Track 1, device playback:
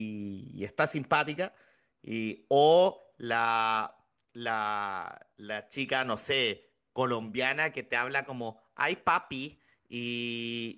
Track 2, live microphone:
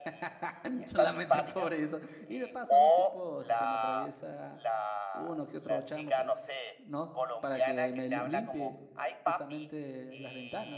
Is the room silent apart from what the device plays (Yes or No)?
No